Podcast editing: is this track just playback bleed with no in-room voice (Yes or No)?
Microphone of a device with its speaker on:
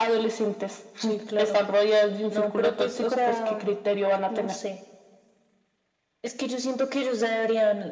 Yes